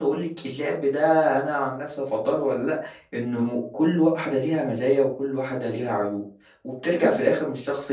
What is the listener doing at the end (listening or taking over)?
listening